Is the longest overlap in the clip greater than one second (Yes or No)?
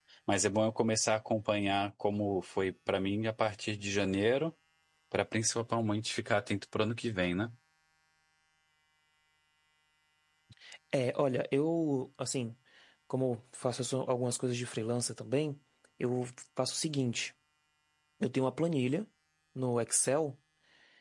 No